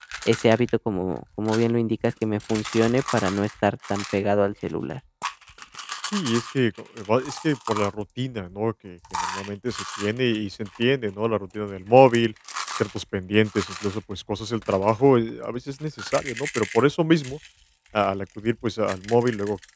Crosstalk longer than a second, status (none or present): none